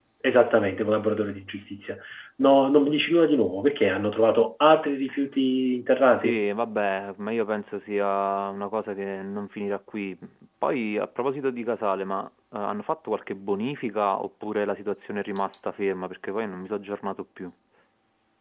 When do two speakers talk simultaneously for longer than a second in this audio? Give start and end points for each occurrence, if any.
none

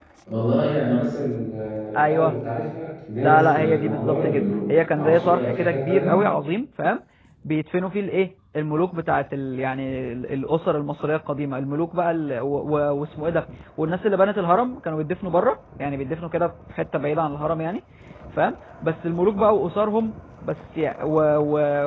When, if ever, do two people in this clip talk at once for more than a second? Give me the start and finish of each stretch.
3.2-6.2

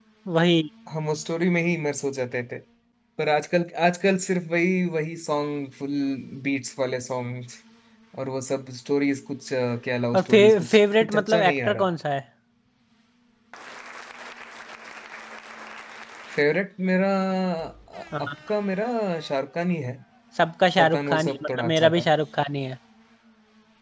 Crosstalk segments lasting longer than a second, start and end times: 10.1-11.8, 20.8-22.0

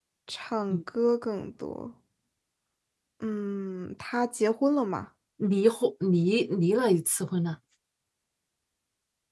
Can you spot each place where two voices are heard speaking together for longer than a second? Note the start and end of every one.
none

